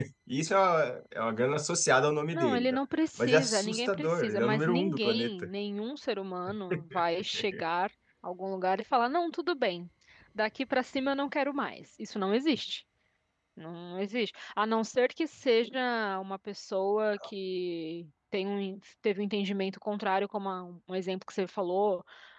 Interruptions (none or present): present